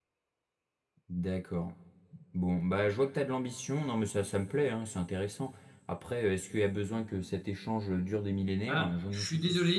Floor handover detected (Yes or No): Yes